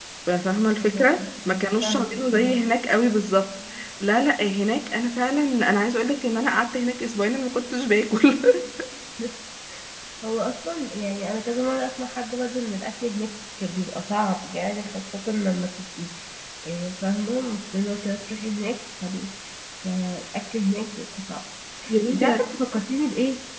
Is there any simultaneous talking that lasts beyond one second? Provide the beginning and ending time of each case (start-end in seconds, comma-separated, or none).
0.8-2.6